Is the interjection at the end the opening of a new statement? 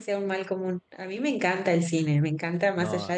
No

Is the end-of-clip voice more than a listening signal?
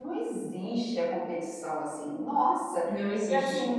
No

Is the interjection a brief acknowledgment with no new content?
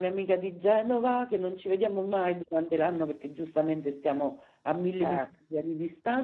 Yes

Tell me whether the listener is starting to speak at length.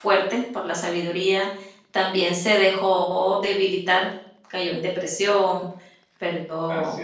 No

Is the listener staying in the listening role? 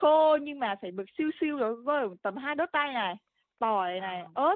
Yes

